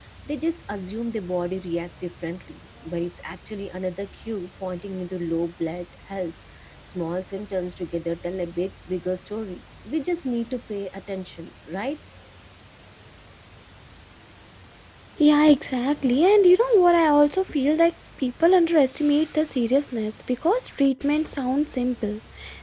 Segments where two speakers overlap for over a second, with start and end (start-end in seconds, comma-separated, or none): none